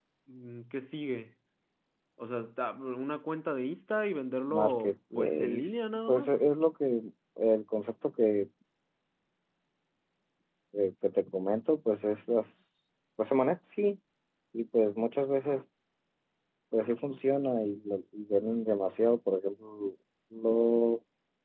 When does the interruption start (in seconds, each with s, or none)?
4.5 s